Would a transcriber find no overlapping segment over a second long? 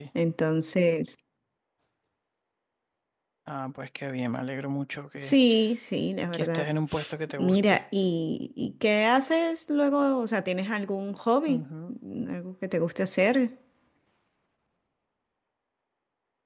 Yes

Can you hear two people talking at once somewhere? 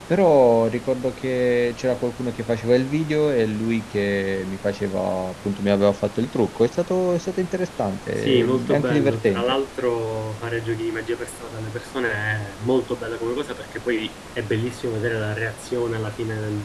Yes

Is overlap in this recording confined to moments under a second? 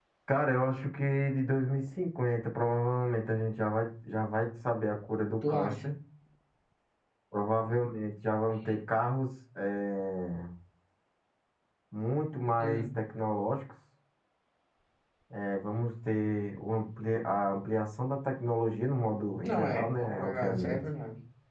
No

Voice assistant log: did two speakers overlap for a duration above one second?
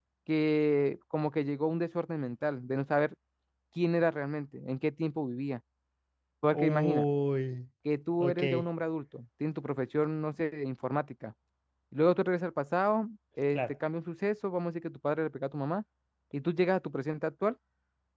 No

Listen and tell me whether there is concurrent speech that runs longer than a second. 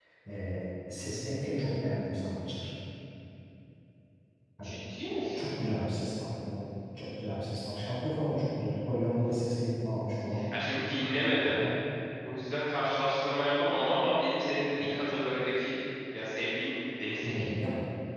No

